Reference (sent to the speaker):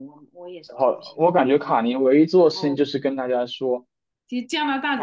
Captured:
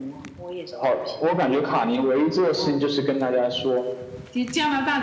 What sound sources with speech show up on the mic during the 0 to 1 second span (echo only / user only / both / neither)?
echo only